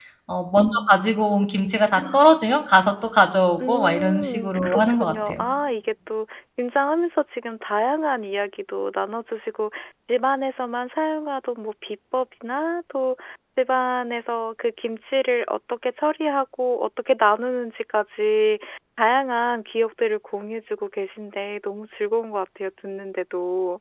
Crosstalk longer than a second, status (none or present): present